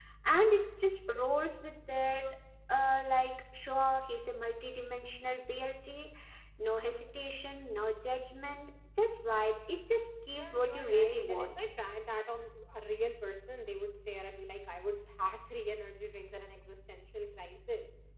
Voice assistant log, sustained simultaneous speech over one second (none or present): present